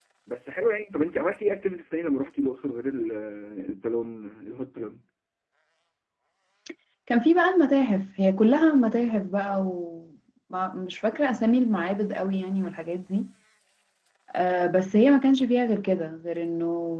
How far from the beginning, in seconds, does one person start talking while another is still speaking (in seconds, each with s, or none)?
none